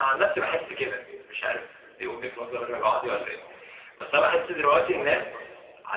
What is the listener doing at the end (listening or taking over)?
listening